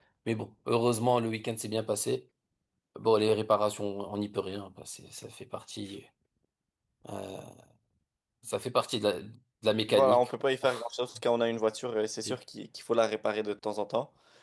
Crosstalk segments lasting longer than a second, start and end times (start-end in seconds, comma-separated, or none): none